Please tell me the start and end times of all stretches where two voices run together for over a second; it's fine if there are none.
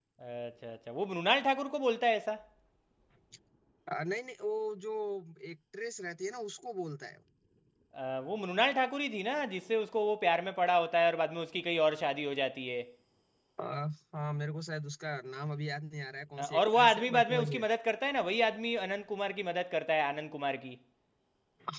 16.4-17.6

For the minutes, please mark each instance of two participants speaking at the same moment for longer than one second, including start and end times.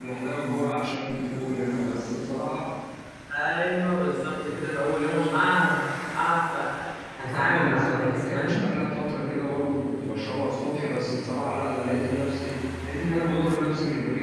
7.3-8.7

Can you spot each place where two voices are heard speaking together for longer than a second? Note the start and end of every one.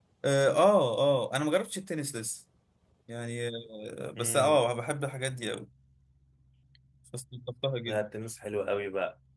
none

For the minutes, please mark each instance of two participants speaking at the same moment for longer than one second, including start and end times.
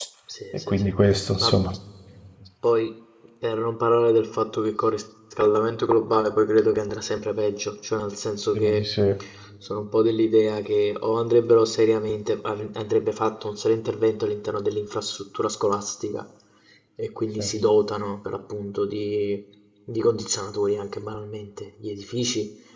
none

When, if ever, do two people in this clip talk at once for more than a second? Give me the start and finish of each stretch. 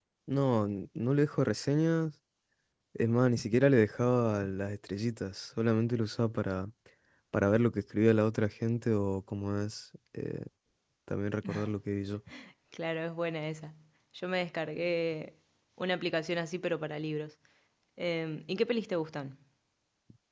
none

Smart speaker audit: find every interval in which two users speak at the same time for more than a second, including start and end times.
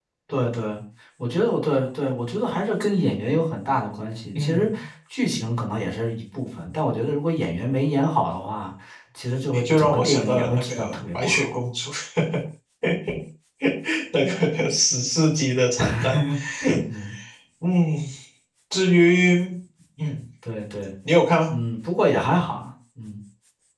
9.5-11.6

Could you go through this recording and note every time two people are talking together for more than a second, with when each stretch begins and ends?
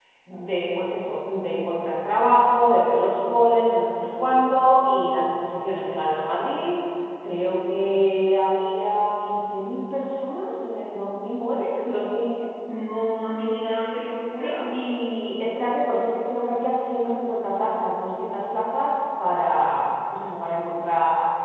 none

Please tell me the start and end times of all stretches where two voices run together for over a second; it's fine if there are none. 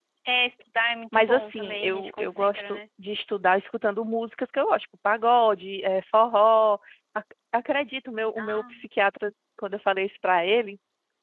1.1-2.8

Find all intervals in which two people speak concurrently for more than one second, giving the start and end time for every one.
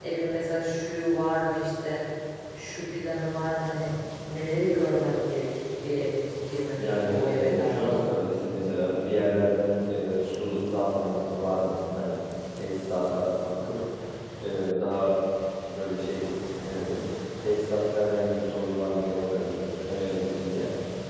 6.8-8.0

